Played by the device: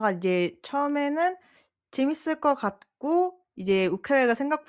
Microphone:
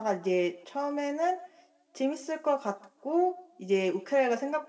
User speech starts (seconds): none

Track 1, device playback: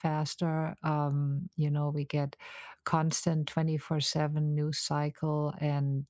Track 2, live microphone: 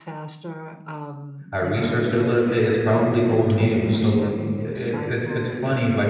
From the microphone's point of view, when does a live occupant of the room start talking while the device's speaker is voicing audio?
1.5 s

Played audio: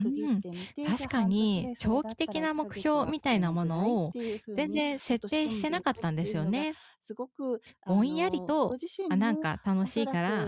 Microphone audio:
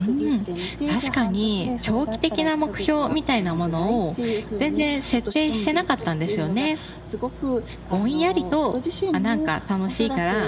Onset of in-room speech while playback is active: none

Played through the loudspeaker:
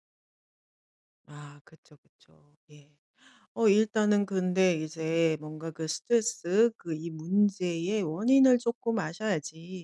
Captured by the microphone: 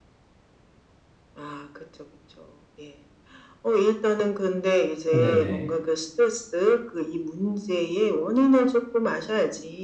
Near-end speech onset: 5.1 s

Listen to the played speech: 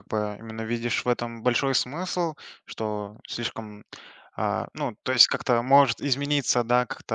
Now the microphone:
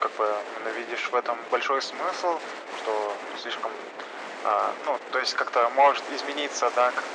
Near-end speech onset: none

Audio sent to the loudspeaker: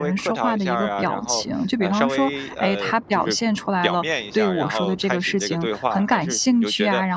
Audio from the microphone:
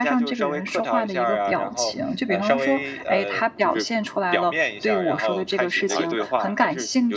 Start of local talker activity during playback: 5.8 s

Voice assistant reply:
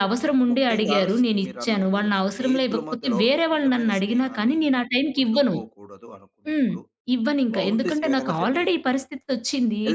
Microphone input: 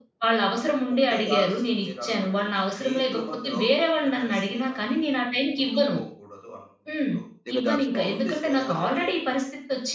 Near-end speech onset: 7.5 s

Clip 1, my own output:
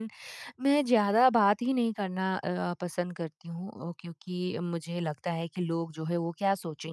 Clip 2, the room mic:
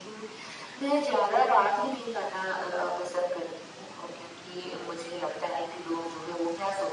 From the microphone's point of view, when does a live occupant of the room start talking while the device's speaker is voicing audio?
none

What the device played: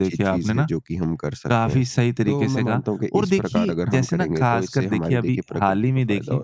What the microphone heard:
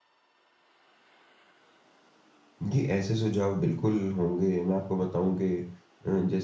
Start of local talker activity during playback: 2.6 s

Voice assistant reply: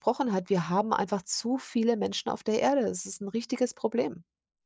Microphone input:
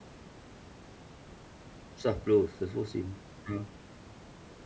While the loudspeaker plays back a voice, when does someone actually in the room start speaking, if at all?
2.0 s

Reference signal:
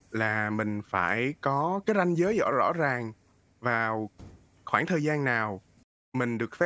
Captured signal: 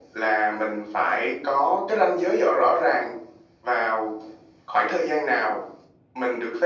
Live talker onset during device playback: none

